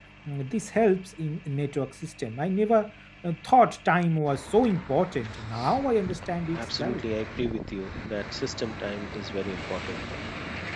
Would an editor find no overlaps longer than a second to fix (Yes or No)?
Yes